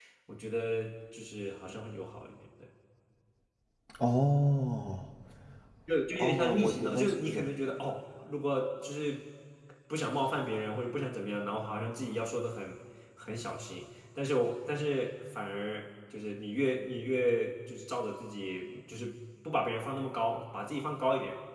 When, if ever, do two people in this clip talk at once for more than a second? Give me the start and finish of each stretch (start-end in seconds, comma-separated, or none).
6.2-7.4